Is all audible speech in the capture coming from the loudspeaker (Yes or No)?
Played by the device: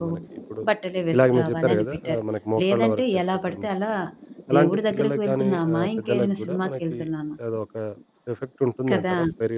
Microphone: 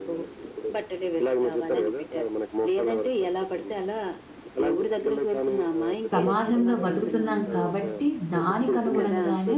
No